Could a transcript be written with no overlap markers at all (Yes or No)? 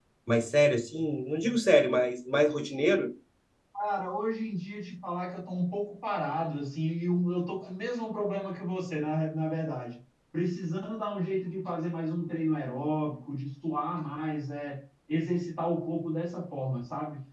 Yes